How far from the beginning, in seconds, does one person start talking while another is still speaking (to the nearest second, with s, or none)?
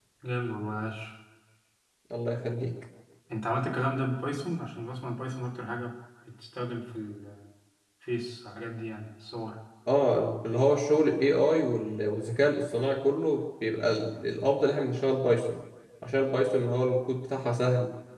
none